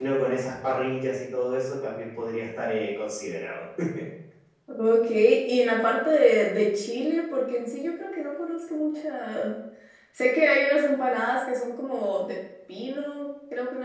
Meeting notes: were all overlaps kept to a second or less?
Yes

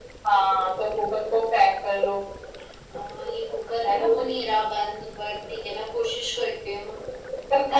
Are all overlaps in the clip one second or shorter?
Yes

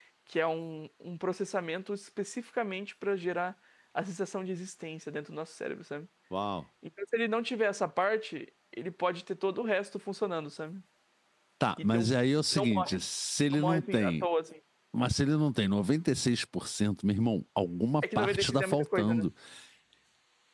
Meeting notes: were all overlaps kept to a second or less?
No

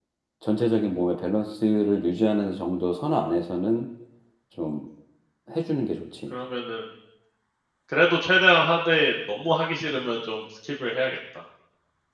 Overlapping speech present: No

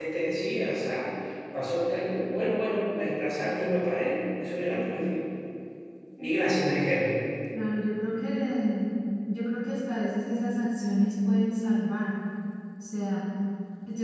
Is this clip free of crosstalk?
Yes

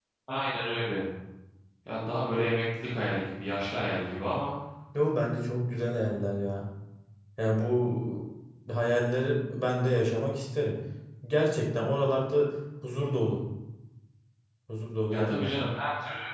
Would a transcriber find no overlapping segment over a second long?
Yes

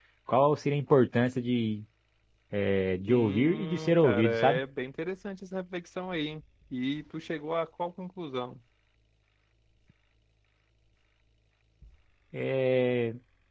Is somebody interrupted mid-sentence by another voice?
Yes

